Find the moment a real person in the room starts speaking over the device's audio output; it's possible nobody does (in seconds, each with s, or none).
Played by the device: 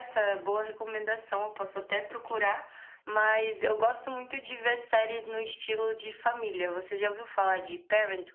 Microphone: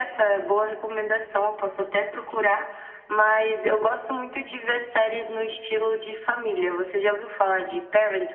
none